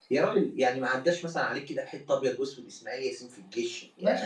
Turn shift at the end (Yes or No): Yes